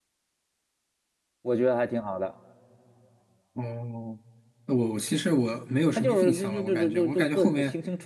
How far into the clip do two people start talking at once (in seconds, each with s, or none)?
6.0 s